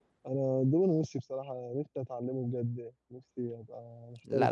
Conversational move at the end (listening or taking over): taking over